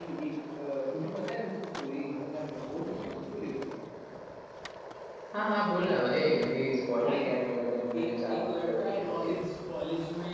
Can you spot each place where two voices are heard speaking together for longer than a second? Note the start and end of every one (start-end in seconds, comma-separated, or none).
7.9-9.3